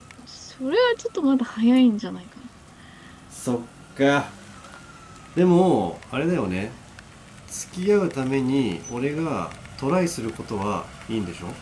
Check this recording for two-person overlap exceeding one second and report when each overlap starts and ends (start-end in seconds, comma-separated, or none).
none